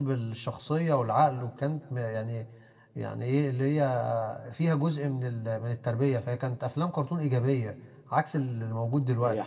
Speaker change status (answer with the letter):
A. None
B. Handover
B